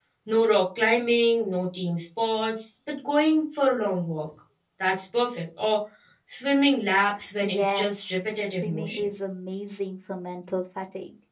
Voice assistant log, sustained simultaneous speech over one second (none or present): present